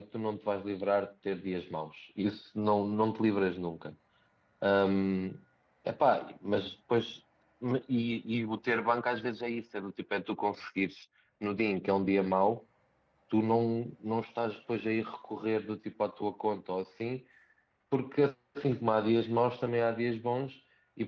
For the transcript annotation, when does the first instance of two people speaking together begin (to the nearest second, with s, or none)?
none